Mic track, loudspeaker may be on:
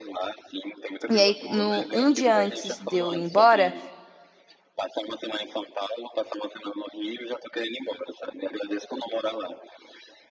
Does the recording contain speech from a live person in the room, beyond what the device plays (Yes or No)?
Yes